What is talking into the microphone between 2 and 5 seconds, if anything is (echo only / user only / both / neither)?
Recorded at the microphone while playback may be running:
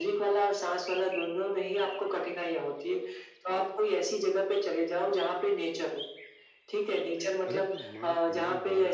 echo only